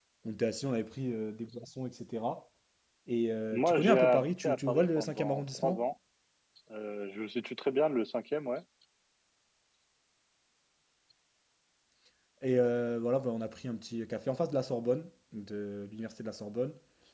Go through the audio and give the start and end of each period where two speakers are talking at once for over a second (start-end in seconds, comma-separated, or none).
3.5-5.8